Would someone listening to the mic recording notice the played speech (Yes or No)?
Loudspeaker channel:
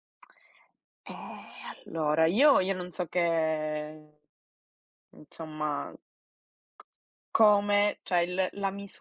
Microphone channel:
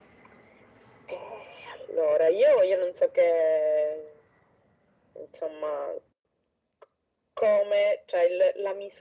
Yes